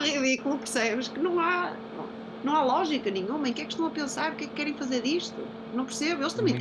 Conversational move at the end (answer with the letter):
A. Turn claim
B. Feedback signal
B